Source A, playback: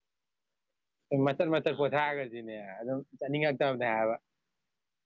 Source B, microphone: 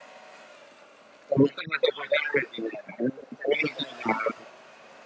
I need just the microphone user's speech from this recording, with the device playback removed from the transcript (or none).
none